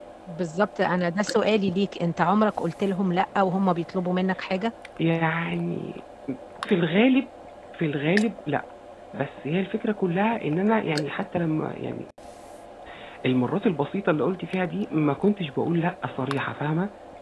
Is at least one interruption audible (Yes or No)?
No